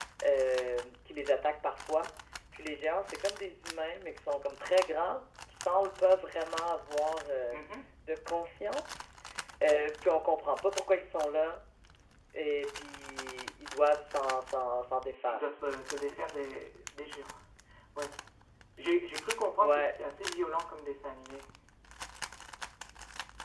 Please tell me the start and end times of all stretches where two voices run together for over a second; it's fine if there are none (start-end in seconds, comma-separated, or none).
none